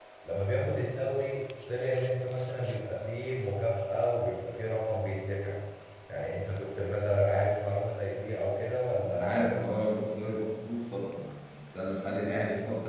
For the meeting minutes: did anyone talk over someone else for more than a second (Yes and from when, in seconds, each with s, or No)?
No